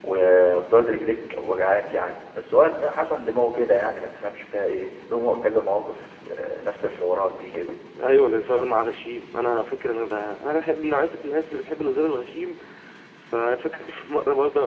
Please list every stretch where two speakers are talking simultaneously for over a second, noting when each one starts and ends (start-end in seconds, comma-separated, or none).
none